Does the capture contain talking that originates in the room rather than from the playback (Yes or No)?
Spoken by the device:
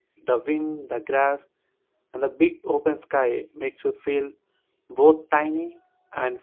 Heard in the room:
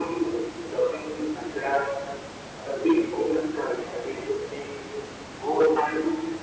No